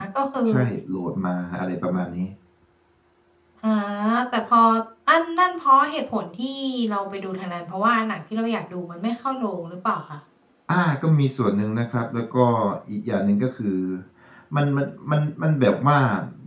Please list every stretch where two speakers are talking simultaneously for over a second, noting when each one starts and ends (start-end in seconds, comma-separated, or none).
none